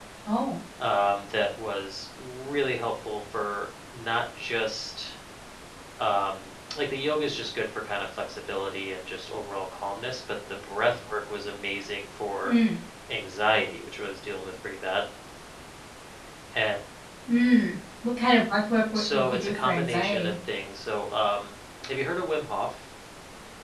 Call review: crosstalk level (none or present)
present